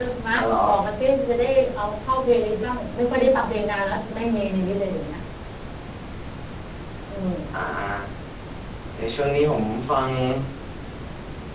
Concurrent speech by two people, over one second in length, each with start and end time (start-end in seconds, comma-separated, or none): none